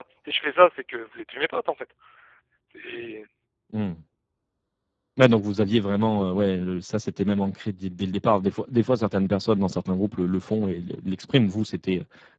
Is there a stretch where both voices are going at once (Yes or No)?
No